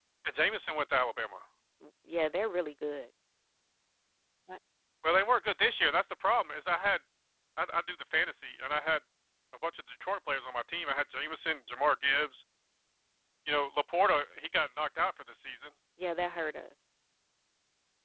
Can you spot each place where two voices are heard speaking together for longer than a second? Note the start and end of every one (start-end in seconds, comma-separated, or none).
none